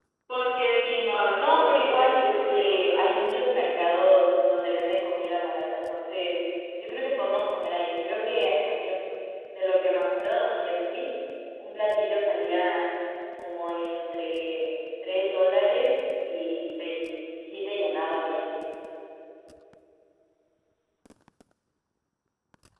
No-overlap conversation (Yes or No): No